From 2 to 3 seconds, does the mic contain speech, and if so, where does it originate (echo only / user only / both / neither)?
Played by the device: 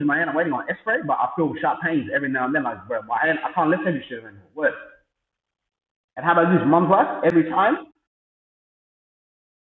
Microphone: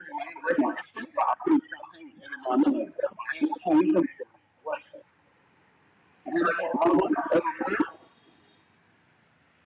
echo only